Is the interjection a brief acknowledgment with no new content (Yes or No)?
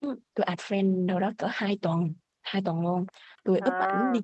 Yes